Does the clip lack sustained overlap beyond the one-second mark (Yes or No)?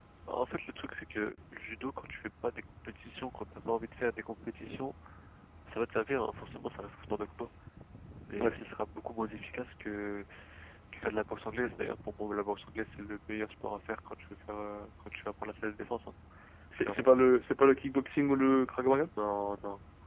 Yes